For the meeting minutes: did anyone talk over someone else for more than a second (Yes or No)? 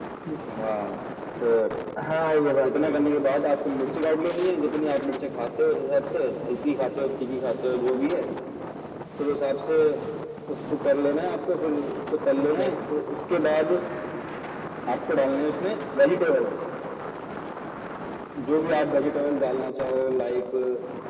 No